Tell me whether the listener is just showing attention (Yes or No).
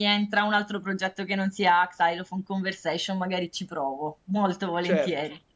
No